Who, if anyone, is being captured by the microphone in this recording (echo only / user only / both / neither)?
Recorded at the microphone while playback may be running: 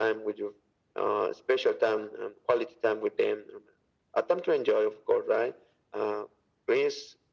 echo only